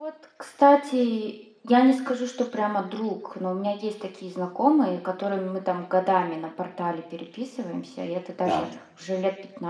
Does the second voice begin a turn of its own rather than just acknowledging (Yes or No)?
No